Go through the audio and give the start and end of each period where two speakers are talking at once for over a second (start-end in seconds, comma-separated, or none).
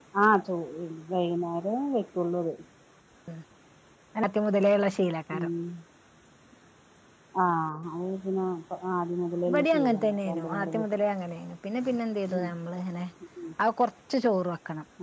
9.5-10.9